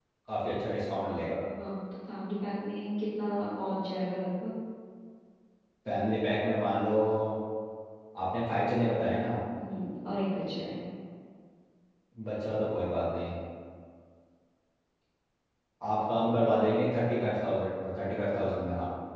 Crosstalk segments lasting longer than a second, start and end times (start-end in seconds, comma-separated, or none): none